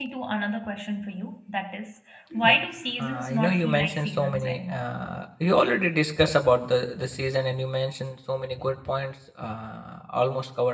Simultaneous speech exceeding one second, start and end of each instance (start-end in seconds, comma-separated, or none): 3.0-4.9